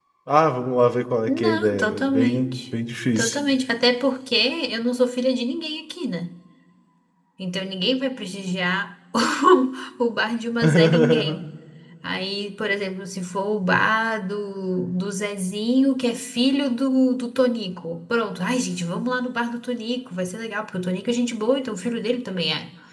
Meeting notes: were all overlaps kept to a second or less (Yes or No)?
No